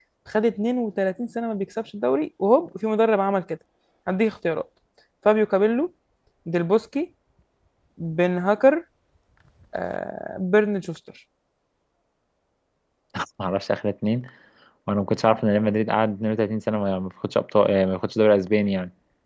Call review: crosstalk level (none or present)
none